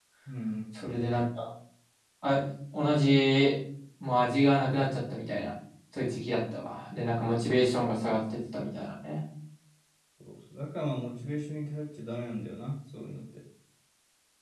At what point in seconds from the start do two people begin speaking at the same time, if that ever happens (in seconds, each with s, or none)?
none